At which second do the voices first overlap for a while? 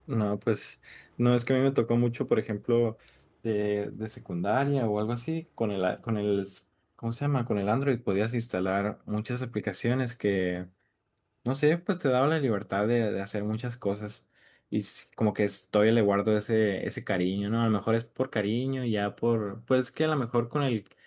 none

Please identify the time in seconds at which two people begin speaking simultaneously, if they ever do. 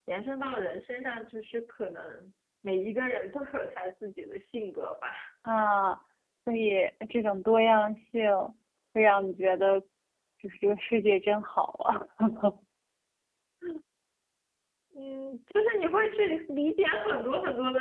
none

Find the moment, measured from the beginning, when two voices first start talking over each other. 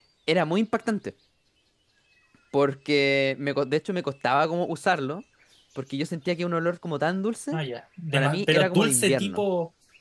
8.1 s

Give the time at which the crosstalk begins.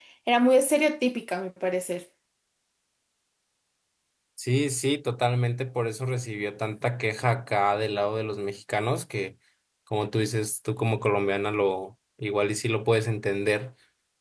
none

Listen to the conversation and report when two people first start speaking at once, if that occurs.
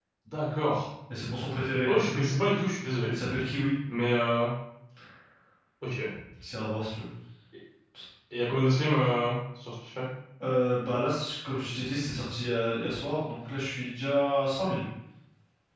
none

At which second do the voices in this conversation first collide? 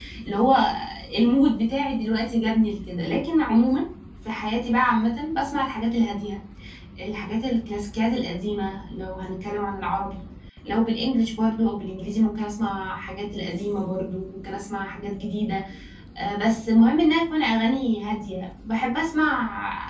none

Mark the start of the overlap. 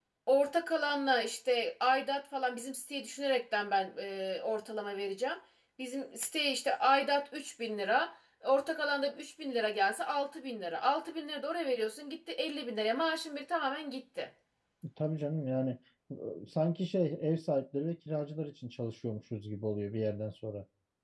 none

